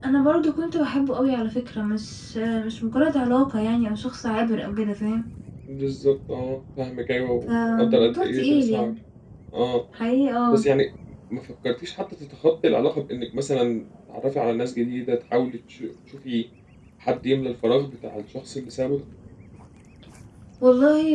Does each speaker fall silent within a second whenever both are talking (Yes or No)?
No